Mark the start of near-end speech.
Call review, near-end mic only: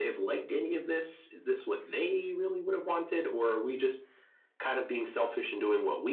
none

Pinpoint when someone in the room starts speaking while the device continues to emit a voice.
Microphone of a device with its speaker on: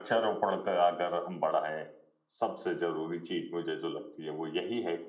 none

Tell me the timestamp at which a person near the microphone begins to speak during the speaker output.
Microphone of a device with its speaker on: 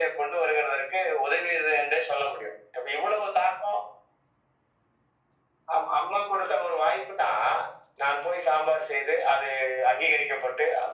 none

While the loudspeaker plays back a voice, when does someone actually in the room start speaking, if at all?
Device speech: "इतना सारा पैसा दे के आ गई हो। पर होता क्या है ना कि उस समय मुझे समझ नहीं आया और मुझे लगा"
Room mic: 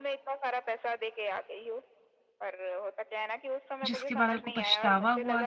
4 s

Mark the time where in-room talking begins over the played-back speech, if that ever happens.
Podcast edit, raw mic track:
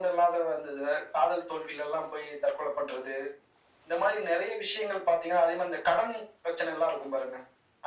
none

